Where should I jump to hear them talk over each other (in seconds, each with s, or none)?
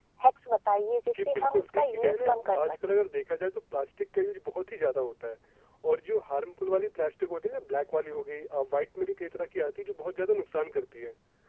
1.2 s